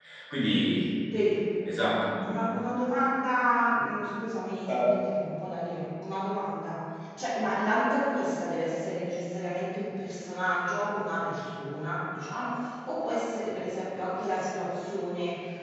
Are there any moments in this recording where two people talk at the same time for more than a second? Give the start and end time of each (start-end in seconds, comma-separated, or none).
none